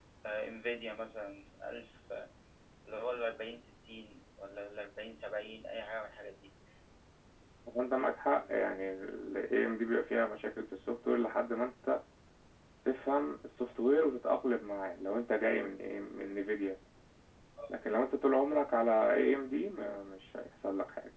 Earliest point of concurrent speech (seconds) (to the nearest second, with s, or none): none